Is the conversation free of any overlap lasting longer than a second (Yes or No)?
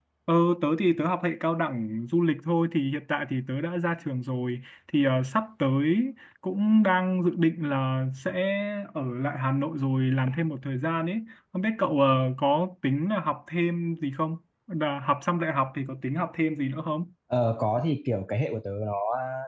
Yes